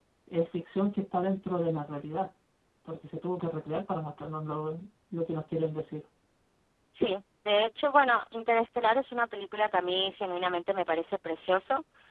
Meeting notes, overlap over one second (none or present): none